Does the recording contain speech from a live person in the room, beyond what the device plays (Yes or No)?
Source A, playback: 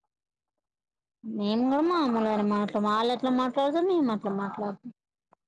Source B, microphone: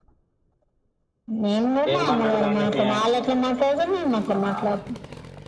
Yes